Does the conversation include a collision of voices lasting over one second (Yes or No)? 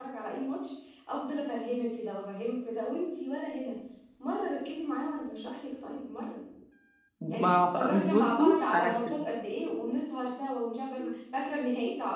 Yes